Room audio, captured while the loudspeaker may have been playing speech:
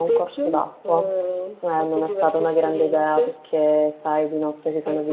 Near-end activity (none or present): present